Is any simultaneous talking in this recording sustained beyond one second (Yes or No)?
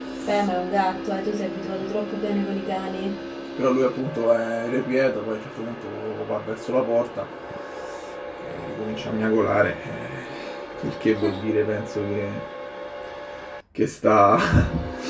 No